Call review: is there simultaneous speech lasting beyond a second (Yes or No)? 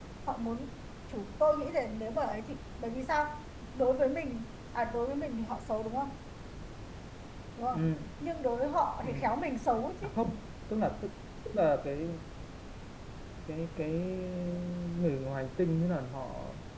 No